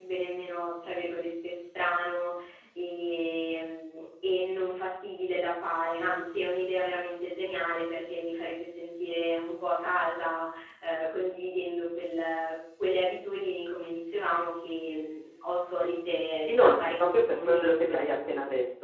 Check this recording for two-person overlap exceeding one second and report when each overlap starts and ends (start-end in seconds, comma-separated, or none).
16.5-18.0